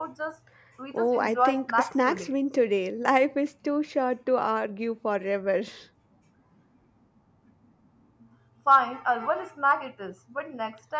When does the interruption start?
0.9 s

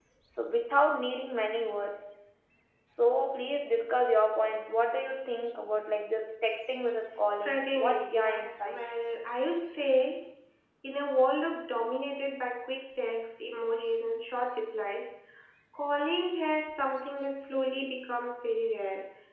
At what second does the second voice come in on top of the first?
7.5 s

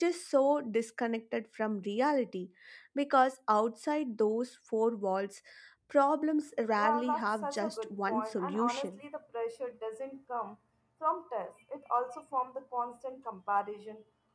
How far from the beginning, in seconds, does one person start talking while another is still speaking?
6.8 s

